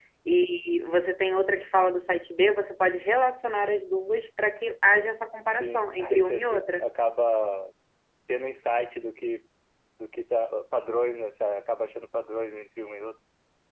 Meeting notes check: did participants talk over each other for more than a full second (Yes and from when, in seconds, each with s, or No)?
Yes, from 5.5 s